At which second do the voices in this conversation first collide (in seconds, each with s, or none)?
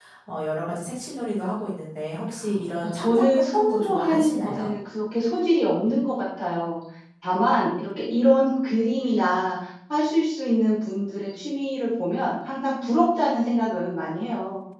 2.8 s